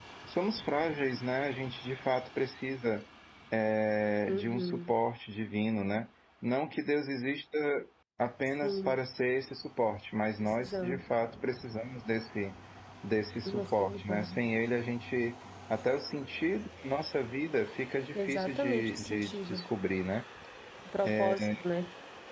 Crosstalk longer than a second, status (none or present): present